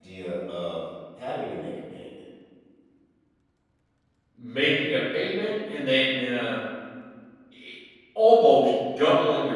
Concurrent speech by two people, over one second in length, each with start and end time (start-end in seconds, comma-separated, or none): none